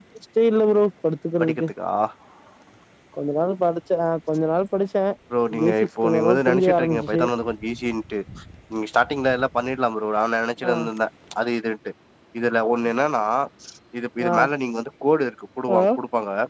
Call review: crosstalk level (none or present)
present